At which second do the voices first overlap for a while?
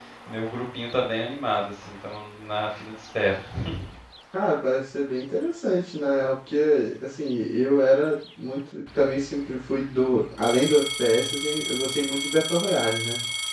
none

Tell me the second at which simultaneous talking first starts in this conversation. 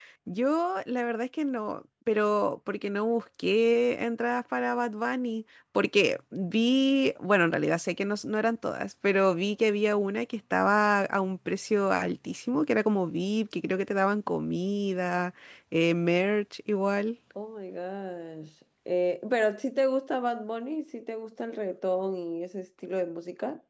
none

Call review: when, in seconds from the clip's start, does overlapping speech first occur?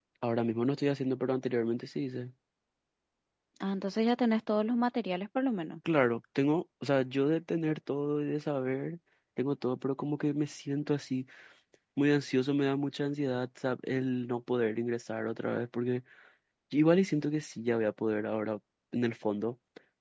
none

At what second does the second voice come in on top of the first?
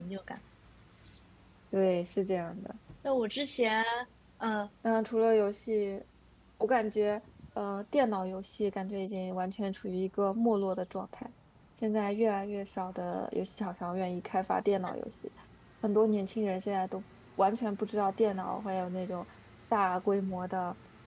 none

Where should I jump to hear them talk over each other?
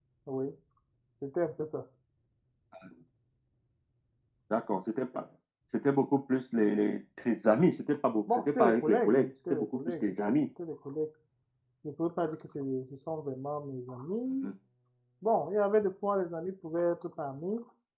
8 s

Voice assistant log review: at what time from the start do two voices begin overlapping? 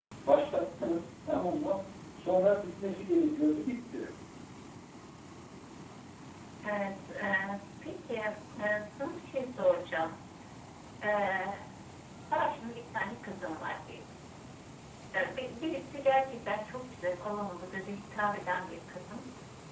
none

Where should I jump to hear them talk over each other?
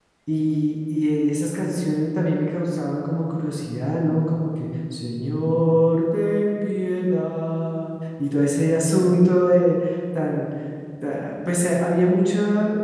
none

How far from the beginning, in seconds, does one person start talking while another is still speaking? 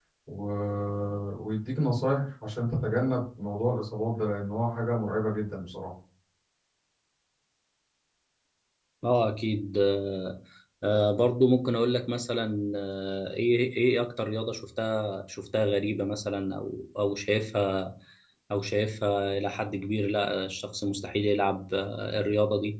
none

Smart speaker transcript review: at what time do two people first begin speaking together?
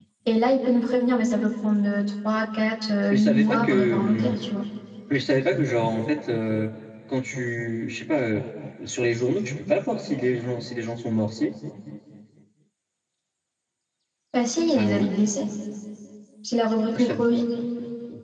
3 s

